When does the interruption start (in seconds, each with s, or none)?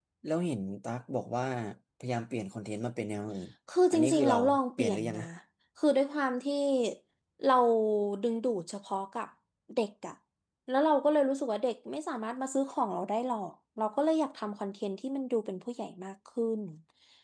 3.9 s